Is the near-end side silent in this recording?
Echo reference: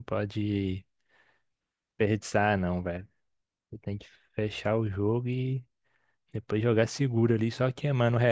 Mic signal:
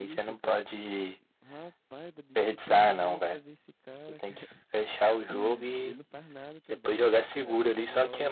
No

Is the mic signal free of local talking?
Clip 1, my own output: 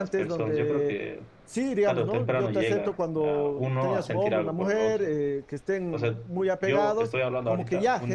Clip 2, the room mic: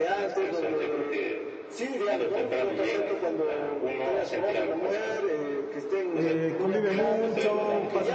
No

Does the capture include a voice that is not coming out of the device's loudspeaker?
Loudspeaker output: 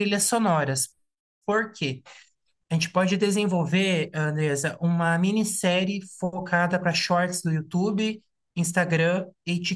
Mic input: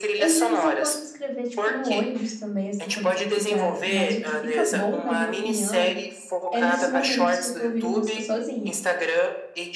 Yes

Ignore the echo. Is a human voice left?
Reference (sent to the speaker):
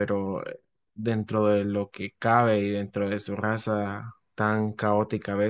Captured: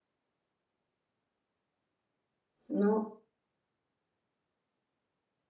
Yes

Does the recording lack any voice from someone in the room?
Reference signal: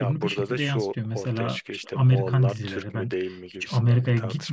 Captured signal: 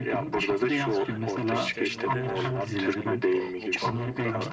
No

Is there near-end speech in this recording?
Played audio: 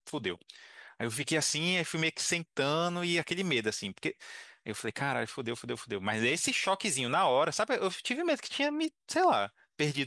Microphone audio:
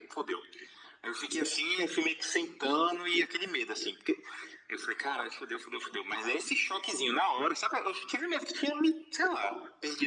No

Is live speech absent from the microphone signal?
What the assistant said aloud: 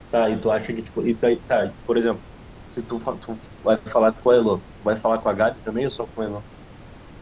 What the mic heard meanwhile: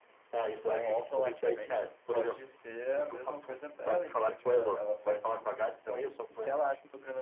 No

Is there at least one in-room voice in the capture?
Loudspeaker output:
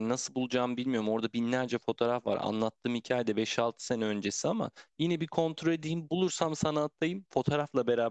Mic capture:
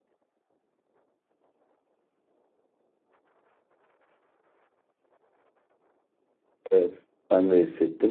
Yes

